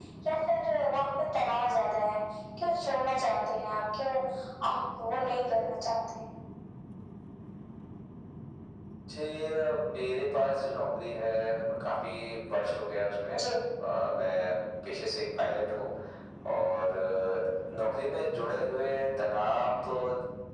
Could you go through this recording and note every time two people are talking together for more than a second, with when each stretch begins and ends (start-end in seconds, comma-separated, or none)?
none